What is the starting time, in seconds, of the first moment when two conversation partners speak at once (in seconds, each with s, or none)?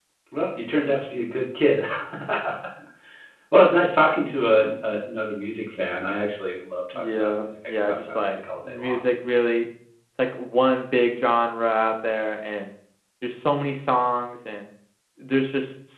6.9 s